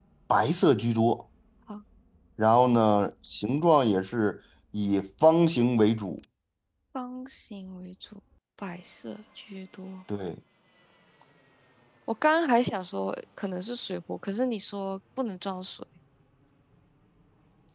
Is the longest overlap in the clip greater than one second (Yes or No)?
No